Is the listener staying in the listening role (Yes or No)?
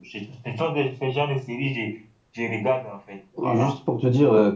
No